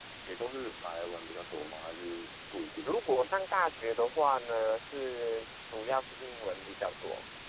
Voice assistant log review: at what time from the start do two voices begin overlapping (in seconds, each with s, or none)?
none